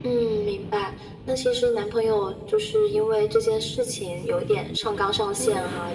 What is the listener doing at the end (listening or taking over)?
listening